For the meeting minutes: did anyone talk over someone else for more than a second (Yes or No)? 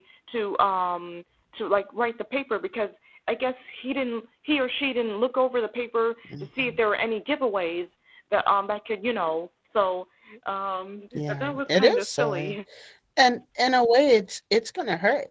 Yes